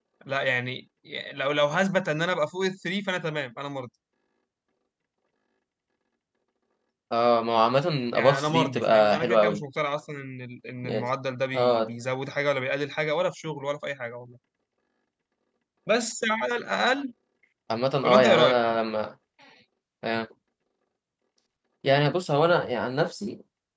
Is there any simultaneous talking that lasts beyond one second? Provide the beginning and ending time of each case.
8.1-9.6

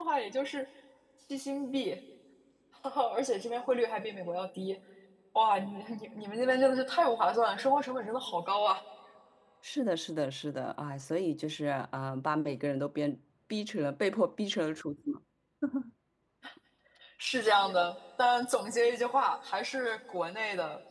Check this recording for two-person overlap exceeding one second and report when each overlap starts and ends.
none

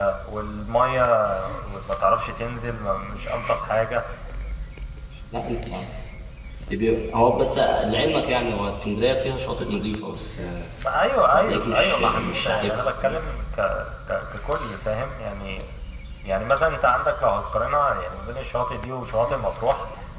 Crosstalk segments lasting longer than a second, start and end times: 11.3-12.8

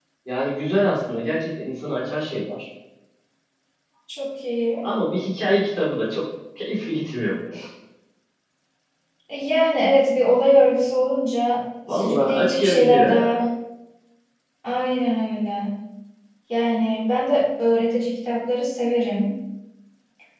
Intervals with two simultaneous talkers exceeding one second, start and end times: 11.9-13.4

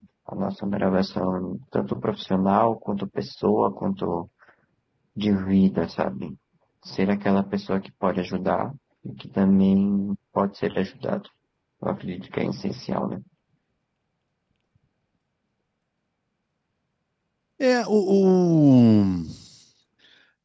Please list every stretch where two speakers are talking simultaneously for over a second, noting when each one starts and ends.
none

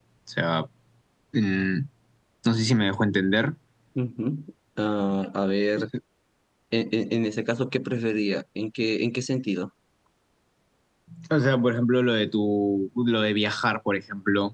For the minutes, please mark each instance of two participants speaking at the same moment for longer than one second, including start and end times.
none

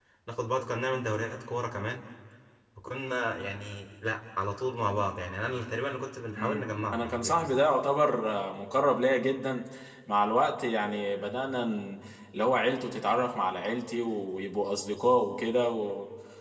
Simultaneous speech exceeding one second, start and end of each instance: 6.4-7.6

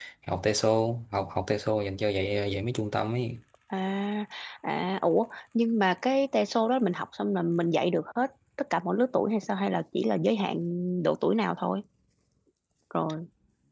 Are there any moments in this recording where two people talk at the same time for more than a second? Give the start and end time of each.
none

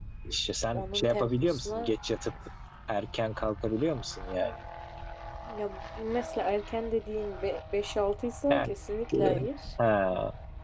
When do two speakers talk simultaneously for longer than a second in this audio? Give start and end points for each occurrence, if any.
0.7-1.9

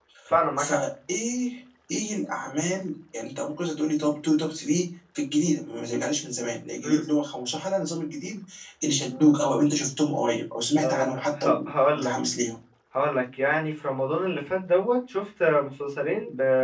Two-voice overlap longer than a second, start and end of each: none

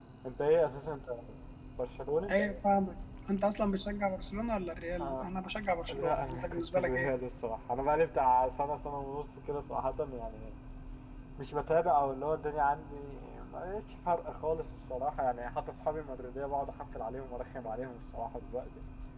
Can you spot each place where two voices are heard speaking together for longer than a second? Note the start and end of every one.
5.9-7.1

